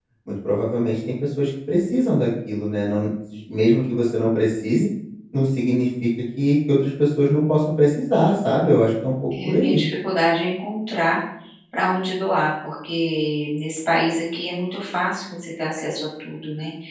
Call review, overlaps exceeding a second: none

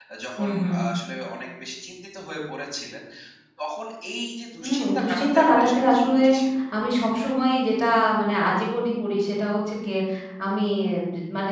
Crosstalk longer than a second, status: present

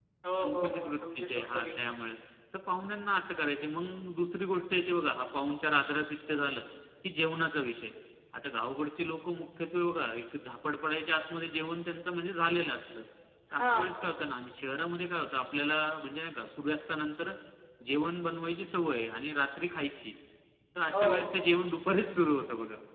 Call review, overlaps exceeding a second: present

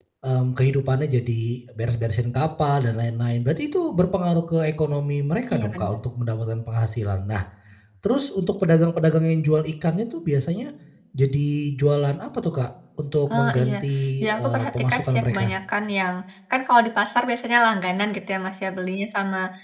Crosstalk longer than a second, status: present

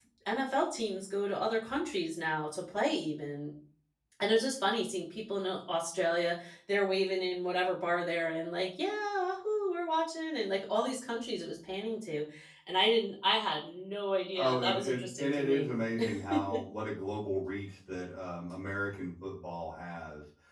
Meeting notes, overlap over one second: present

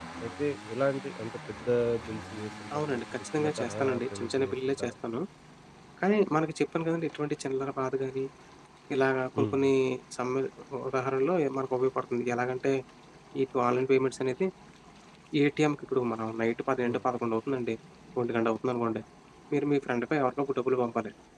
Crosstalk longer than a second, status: present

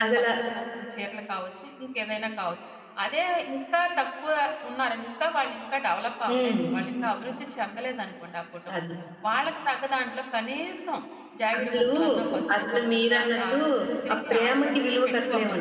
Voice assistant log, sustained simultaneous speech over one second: present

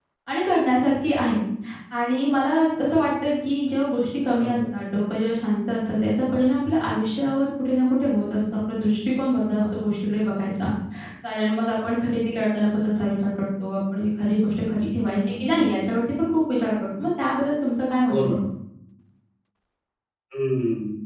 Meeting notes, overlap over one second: none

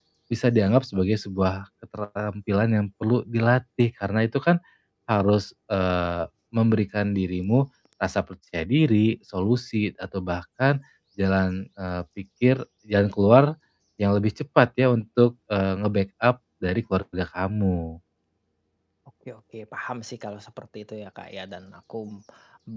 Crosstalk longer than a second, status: none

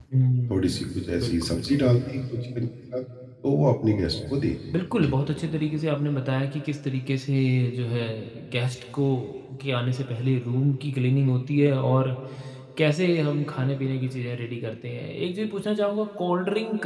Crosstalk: present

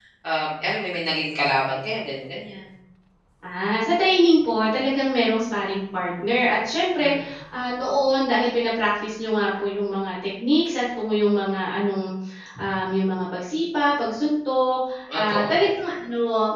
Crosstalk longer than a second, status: none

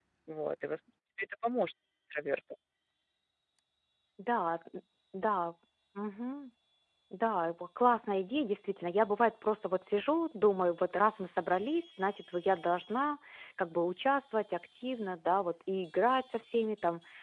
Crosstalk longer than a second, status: none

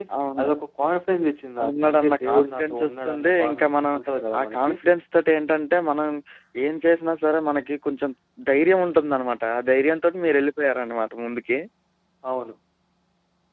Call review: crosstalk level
present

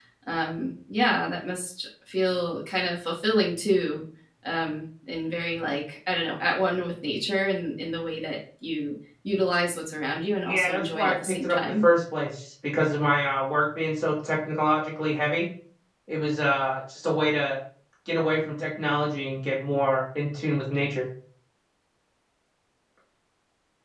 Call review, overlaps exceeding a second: present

